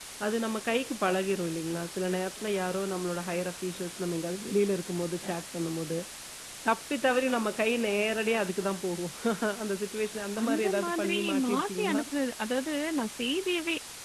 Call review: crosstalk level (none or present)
present